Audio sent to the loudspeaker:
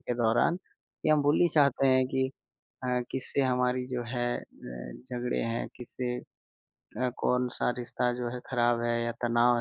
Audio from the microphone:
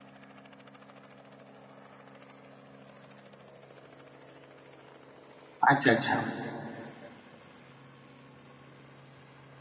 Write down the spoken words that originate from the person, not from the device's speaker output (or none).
अच्छा, अच्छा।